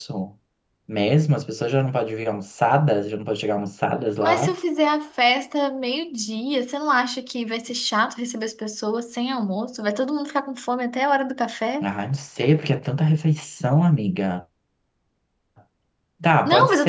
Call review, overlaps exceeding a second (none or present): none